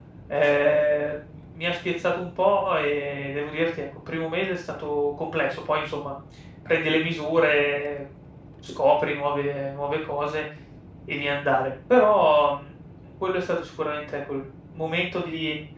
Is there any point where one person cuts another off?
No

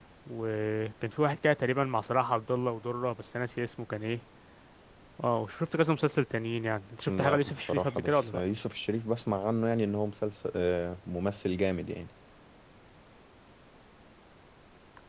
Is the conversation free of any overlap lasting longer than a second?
No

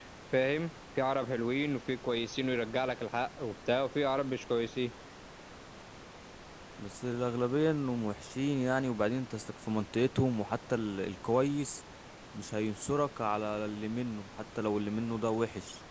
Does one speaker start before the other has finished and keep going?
No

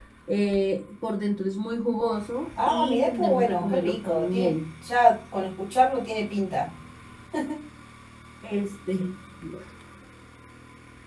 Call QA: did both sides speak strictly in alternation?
No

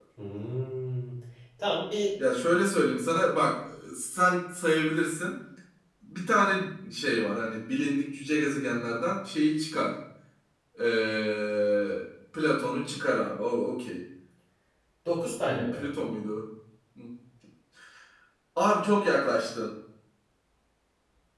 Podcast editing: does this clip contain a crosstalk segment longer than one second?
No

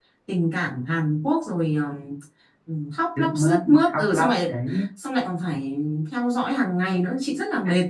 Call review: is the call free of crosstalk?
No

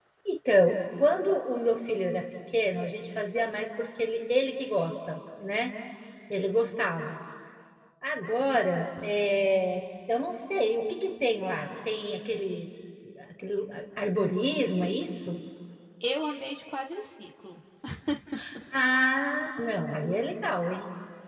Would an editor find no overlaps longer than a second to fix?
Yes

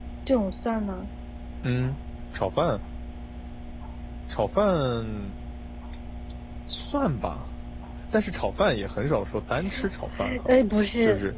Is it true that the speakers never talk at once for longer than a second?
Yes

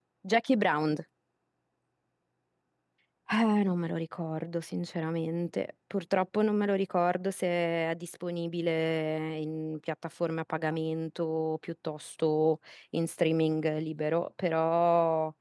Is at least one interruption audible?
No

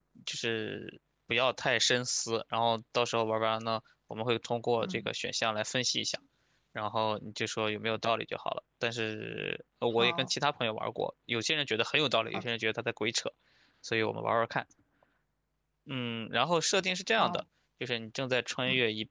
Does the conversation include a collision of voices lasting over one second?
No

